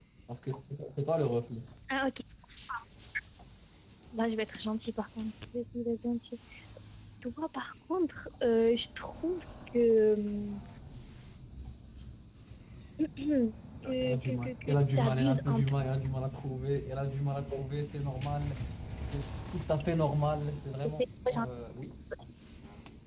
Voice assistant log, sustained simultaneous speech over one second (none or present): present